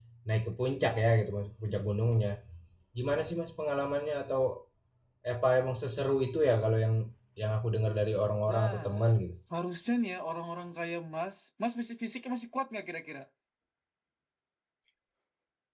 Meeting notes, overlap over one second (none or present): none